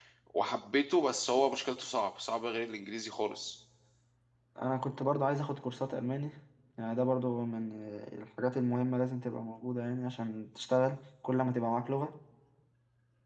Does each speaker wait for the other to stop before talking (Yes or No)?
Yes